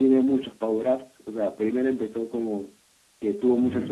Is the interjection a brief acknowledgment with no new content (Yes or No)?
Yes